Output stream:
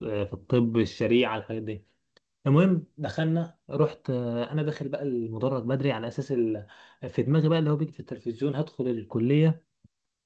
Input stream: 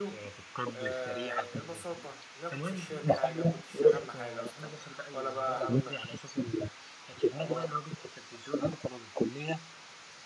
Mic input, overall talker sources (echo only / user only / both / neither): both